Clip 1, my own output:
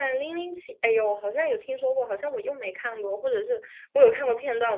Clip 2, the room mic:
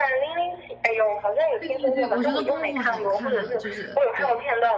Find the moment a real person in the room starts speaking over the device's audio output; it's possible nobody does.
1.6 s

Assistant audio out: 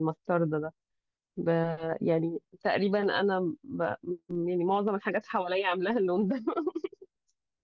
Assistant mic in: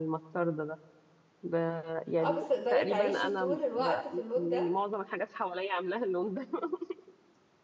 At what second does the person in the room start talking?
2.2 s

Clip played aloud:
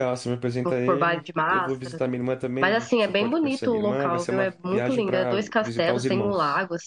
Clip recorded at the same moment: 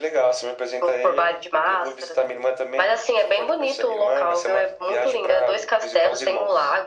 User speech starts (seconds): none

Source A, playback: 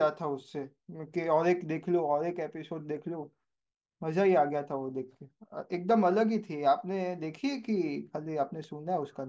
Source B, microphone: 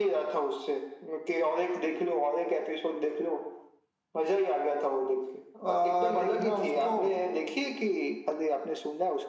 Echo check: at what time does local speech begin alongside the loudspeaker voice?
5.6 s

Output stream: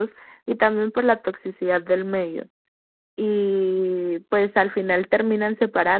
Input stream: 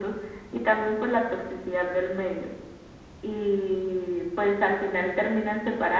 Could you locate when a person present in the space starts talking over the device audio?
none

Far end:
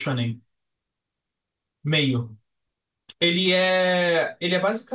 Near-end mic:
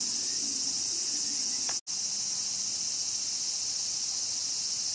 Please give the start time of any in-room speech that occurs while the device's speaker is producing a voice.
none

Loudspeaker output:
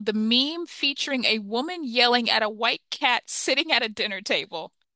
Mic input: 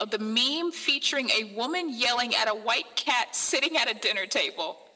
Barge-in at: none

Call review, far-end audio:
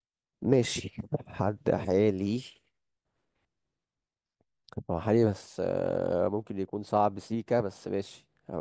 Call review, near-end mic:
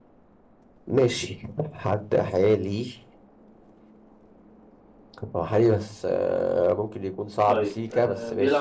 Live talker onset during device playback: 7.4 s

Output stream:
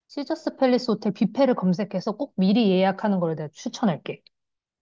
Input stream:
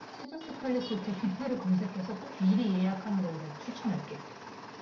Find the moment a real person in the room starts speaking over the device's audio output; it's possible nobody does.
none

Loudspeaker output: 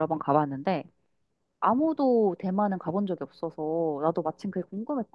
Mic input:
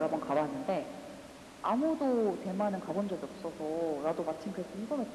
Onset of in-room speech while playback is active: none

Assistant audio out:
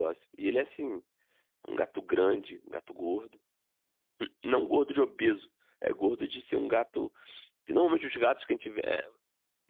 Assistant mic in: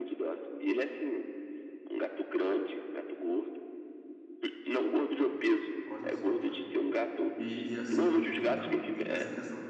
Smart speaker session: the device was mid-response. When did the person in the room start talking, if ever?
5.8 s

